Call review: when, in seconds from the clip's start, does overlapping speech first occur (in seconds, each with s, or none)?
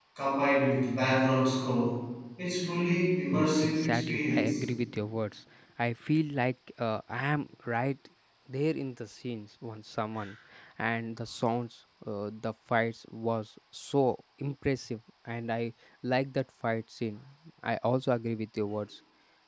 3.3 s